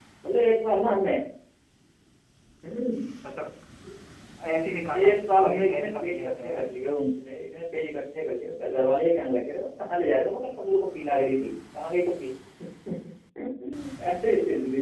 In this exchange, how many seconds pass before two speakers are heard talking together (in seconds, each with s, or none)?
5.0 s